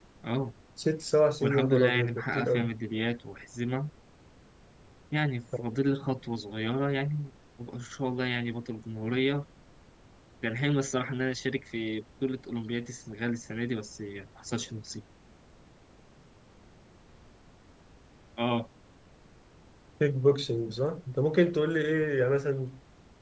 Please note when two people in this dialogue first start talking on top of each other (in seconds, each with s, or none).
1.4 s